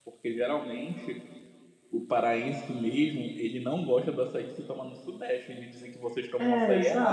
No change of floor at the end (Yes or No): No